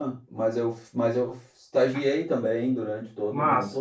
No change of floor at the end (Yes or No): Yes